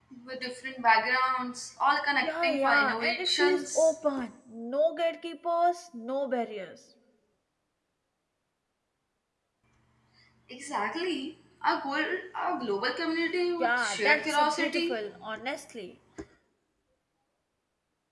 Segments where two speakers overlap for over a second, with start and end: 2.2-4.0, 13.6-15.0

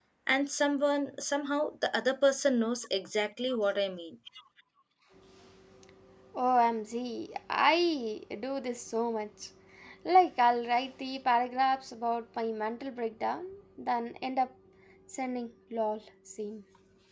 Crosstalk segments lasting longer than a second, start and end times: none

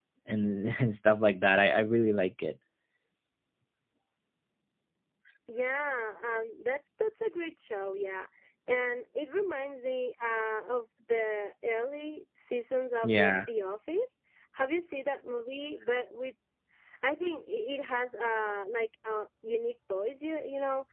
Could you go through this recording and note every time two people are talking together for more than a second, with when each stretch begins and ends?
none

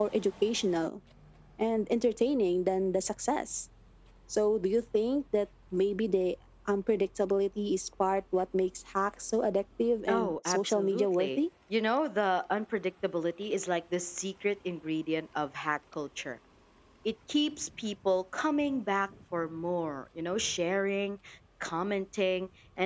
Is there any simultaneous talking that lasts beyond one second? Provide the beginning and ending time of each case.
10.1-11.4

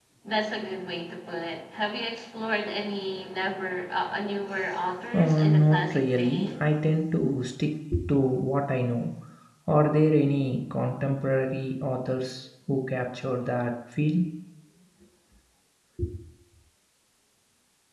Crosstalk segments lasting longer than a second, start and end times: 5.1-6.7

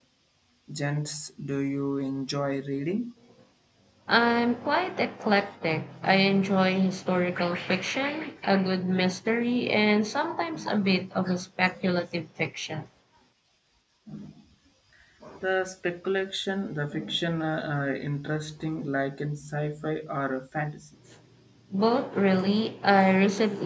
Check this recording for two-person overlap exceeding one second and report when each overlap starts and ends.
none

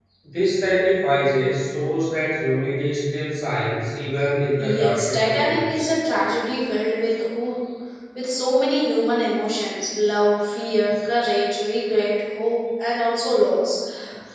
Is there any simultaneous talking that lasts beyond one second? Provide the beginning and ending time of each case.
4.6-5.9

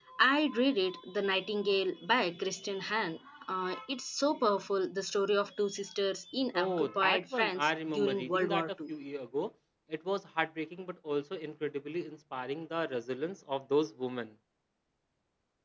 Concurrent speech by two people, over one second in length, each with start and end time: 6.5-8.7

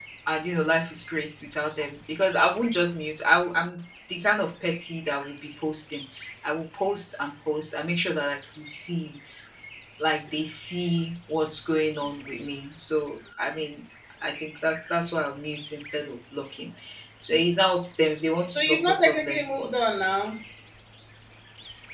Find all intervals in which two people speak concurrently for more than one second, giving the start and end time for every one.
18.5-19.9

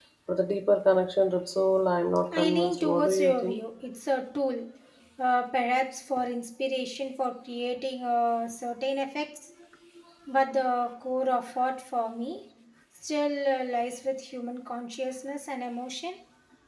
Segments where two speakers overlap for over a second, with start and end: 2.3-3.6

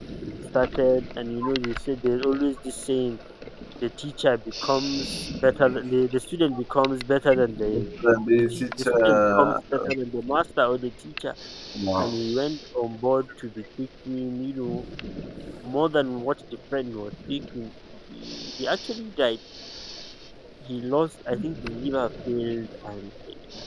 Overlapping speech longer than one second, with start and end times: 8.3-9.8

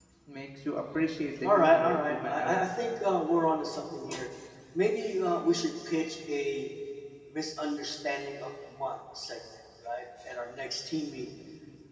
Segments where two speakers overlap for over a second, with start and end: 1.4-2.7

